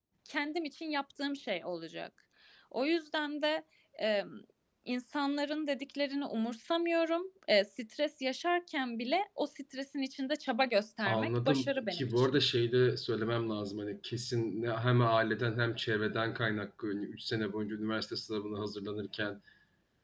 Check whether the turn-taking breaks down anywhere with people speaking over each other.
Yes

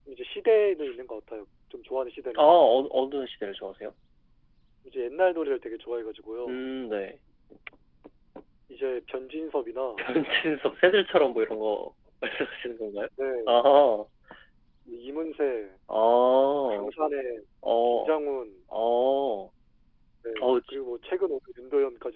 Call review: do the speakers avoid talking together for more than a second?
Yes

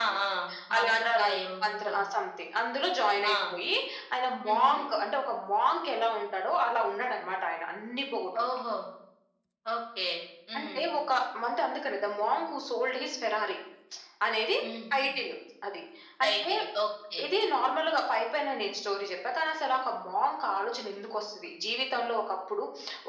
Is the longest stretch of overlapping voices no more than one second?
No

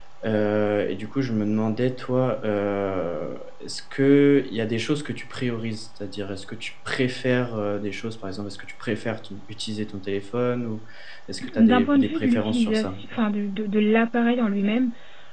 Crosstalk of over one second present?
Yes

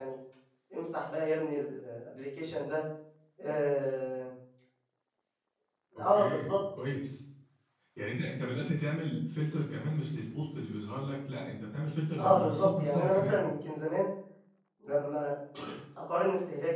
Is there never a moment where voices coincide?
No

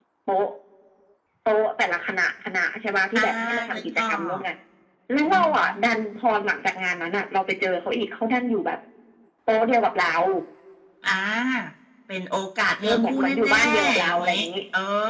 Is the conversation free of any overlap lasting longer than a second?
No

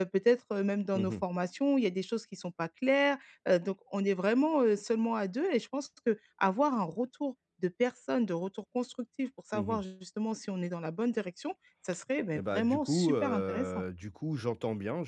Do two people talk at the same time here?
Yes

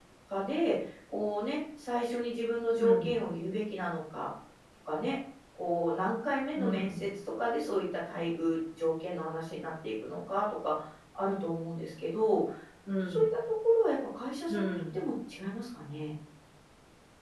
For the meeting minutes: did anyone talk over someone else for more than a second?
No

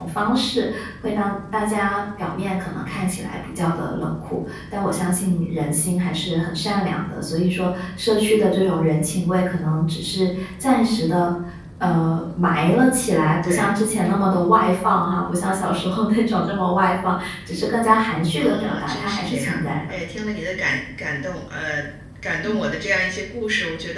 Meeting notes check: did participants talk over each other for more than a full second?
Yes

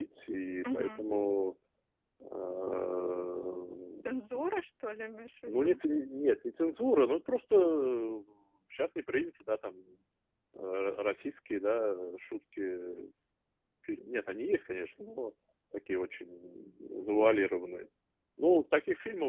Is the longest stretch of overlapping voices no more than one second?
Yes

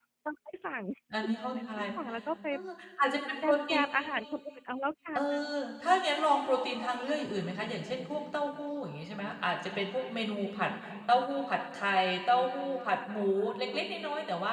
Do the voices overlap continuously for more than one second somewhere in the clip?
No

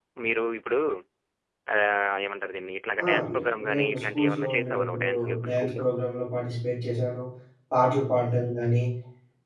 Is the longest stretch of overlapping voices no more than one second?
No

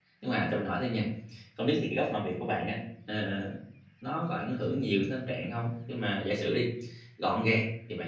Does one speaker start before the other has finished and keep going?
No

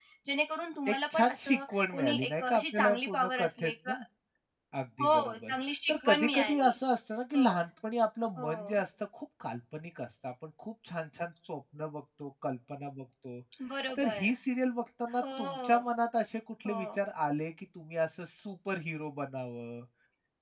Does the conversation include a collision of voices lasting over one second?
Yes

